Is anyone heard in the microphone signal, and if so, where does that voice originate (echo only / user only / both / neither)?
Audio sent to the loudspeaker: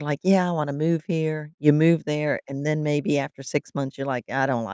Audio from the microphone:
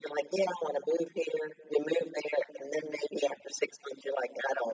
echo only